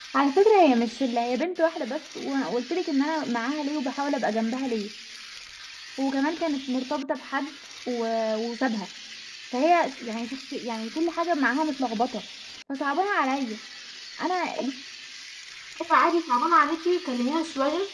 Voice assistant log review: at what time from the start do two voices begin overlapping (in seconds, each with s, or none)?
none